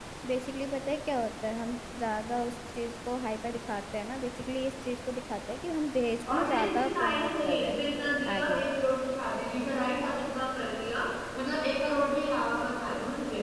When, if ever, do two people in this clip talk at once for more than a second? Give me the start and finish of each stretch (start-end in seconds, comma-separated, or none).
6.3-7.8